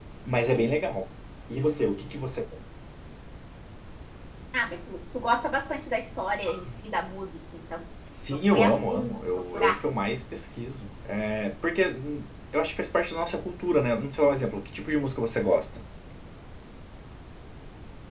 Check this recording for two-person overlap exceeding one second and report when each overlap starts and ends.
8.3-9.8

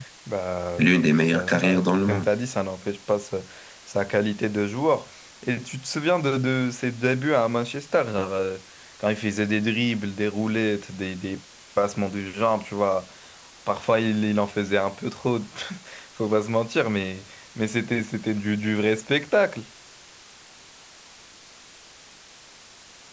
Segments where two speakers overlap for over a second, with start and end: 0.8-2.3

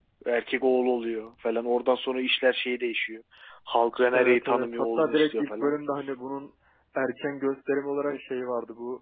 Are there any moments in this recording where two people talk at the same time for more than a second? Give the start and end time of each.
4.1-5.8

